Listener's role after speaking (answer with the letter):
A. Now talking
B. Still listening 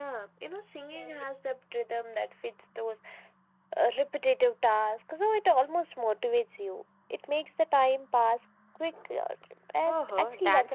A